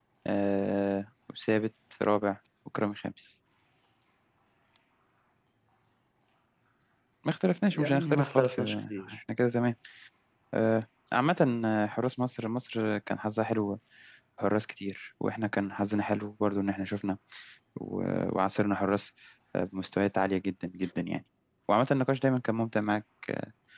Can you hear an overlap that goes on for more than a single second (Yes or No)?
Yes